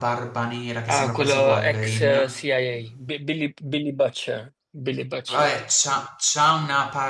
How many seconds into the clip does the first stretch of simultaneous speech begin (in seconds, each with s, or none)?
0.9 s